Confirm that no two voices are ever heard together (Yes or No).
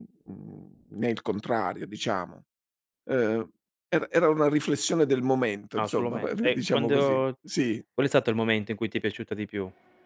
No